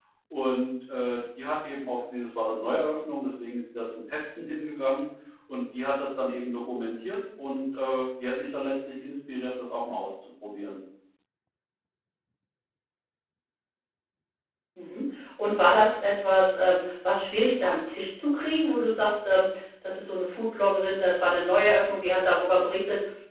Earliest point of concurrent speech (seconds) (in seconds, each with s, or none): none